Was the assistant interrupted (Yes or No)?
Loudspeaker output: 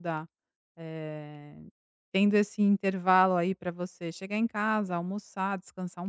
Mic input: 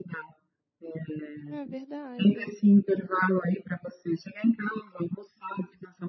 Yes